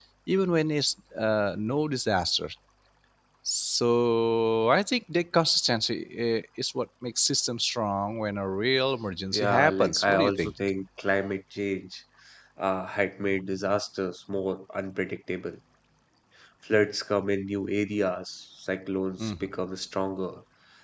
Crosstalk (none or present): present